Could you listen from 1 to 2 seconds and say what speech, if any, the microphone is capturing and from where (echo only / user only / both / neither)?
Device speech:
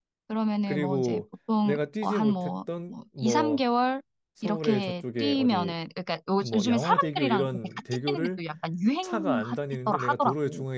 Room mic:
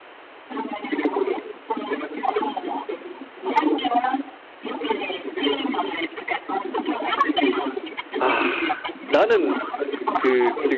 echo only